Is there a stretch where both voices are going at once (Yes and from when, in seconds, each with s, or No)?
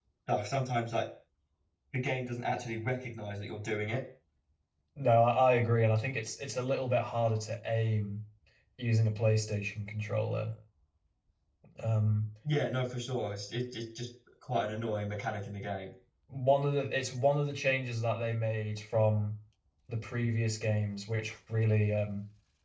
No